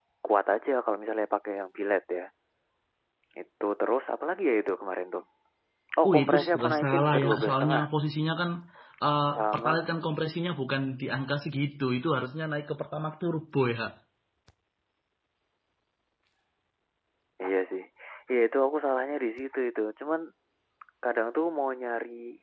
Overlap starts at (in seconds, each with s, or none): 6.0 s